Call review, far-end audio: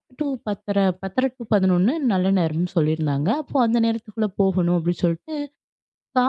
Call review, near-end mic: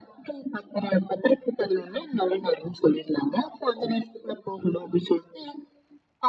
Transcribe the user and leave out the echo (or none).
none